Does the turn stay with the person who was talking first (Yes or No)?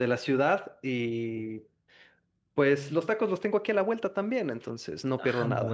No